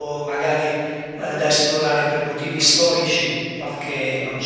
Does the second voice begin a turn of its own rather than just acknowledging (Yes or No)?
No